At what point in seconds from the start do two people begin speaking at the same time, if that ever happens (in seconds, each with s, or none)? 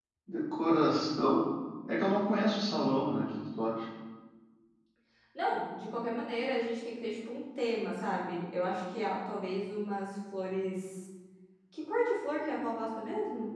none